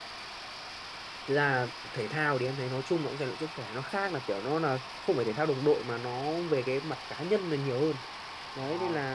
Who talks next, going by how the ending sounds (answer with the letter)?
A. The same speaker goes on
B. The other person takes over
A